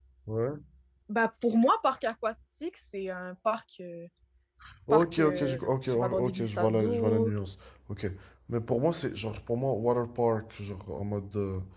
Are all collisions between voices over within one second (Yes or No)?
No